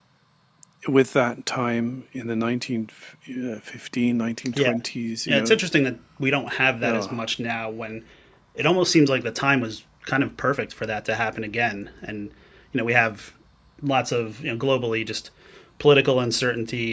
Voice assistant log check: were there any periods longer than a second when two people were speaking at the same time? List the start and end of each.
none

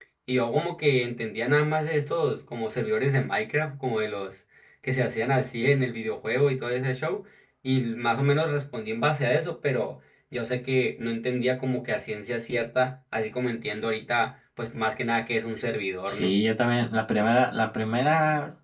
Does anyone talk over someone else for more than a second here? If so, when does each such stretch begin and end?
none

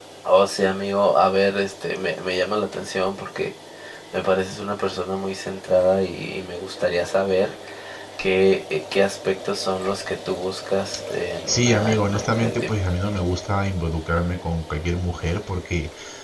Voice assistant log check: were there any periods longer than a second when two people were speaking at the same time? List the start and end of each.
11.5-12.8

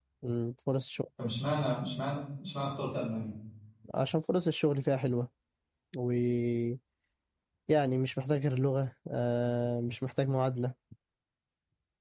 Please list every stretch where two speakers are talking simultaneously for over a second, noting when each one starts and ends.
none

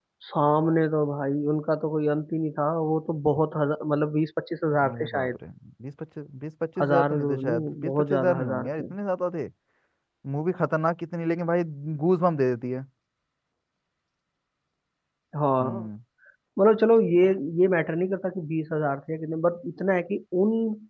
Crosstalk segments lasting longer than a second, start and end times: 6.8-8.9

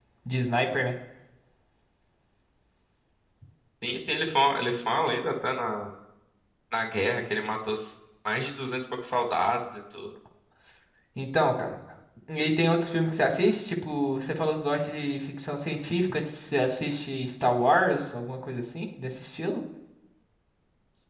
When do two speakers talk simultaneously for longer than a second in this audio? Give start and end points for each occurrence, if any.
none

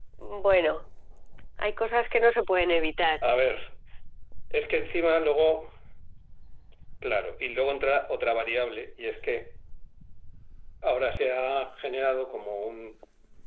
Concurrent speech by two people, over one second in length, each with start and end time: none

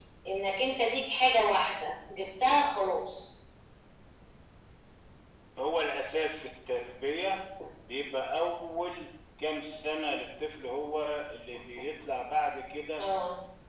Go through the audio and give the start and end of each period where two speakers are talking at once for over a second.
none

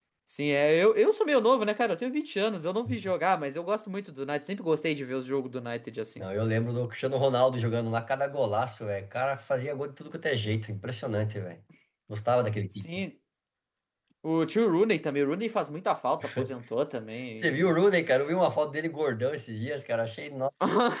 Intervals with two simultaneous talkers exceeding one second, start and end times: none

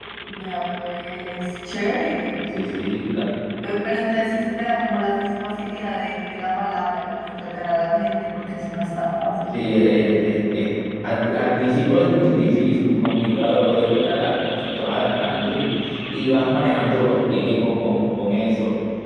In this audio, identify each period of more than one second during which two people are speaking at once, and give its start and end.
none

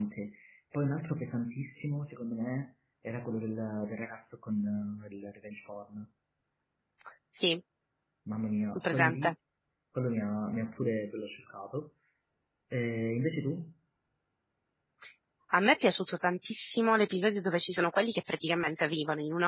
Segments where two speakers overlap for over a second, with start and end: none

